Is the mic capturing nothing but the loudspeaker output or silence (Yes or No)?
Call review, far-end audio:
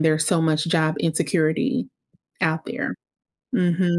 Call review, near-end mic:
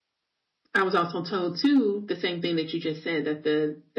No